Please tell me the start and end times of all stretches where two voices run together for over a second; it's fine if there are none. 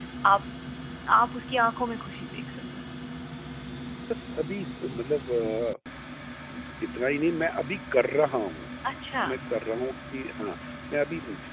none

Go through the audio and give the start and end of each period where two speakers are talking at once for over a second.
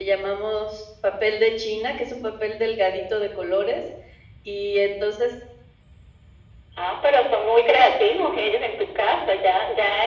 none

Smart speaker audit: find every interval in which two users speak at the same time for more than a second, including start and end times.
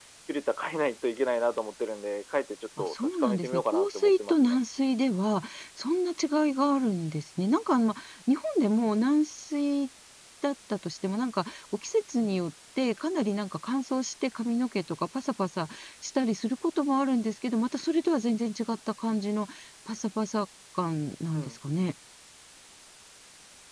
2.8-4.6

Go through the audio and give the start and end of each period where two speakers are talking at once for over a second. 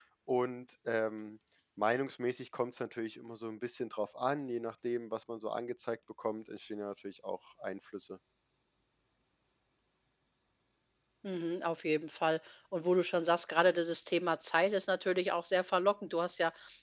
none

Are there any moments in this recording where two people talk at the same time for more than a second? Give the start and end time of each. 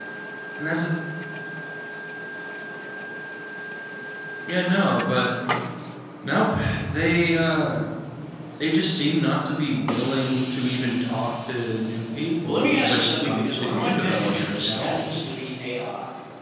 12.4-15.0

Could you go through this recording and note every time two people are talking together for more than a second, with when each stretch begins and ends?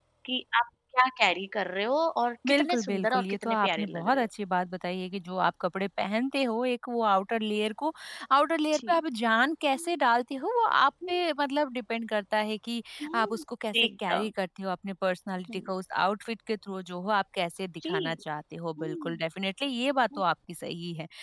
2.5-4.3

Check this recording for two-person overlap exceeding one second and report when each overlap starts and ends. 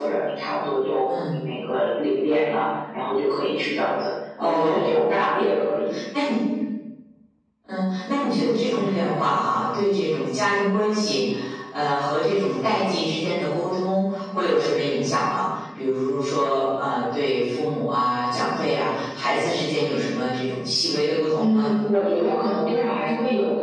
none

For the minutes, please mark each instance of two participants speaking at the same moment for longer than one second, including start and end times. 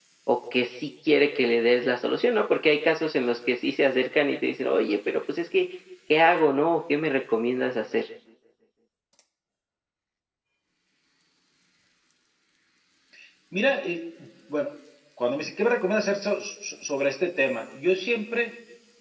none

